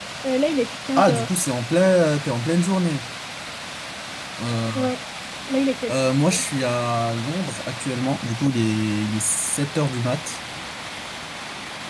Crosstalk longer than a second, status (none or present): none